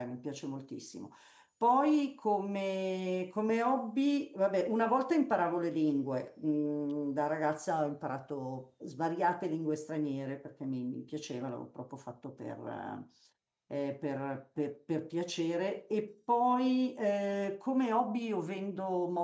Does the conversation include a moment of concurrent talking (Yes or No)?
No